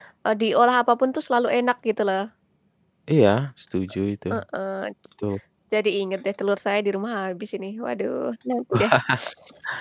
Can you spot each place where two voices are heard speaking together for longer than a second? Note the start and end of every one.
none

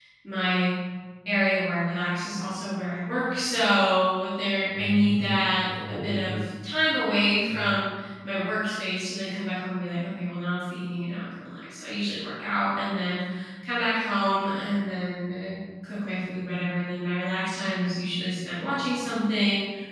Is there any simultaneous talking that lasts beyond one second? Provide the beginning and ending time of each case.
4.8-6.4

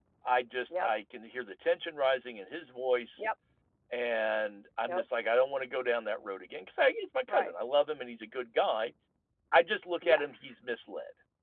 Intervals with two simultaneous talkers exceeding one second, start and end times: none

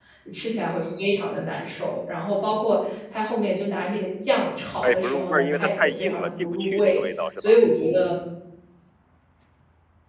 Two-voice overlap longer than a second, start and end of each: 4.8-7.0

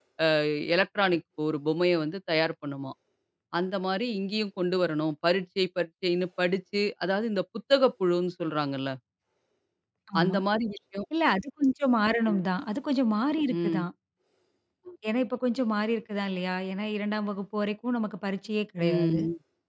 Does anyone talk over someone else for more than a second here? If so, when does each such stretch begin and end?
none

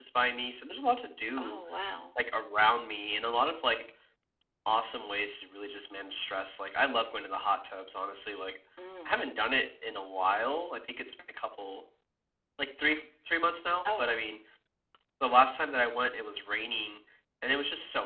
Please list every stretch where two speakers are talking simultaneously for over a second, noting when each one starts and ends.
none

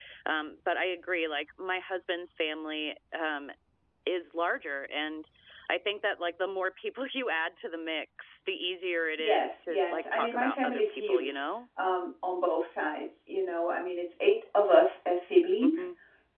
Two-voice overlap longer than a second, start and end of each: 9.2-11.4

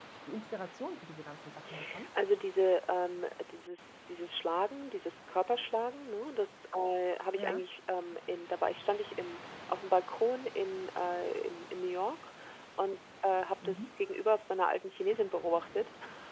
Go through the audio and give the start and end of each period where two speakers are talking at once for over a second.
none

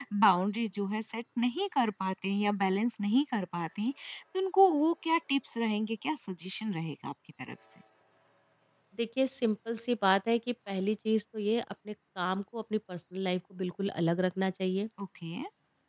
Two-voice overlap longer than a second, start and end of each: none

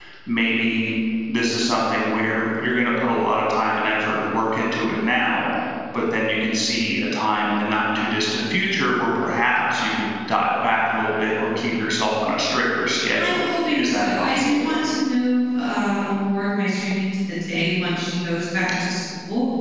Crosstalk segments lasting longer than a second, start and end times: 13.2-14.6

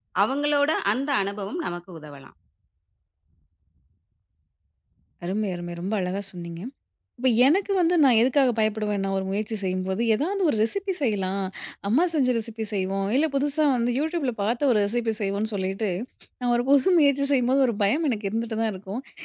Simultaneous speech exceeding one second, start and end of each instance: none

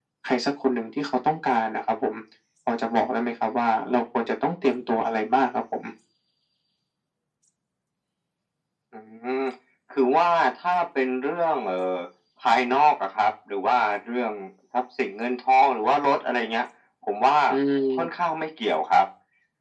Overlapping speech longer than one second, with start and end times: none

